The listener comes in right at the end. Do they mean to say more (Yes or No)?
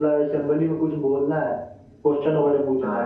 No